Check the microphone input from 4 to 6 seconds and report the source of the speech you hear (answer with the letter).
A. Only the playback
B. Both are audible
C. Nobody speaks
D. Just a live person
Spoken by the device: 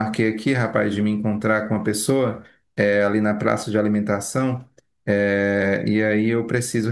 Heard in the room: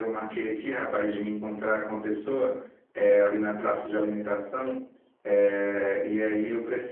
A